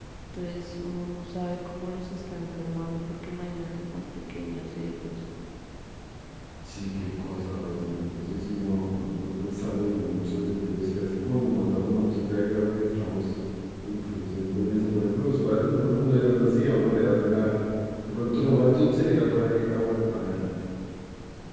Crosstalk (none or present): none